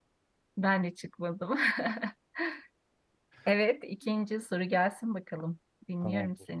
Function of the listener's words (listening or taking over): taking over